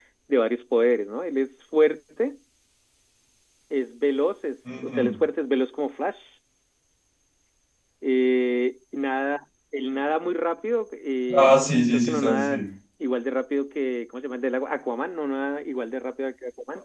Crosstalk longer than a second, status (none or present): present